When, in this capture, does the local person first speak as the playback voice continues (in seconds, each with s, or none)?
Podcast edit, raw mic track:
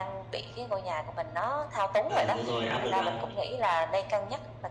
2.1 s